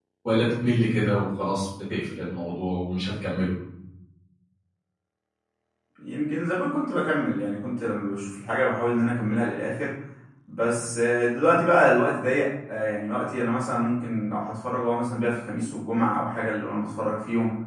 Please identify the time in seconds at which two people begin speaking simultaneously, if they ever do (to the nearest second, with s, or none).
none